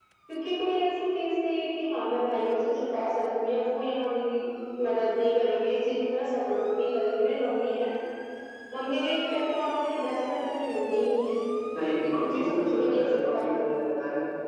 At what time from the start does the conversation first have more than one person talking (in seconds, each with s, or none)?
12.0 s